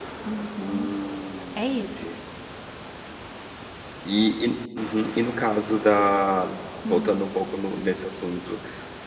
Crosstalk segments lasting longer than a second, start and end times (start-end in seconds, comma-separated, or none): none